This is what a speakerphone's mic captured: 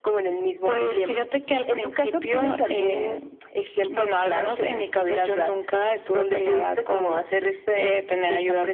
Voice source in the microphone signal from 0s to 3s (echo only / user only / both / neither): echo only